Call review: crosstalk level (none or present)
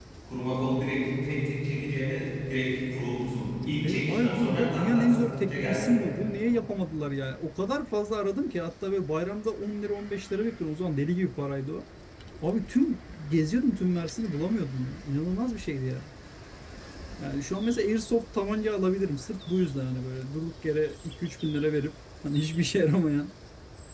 present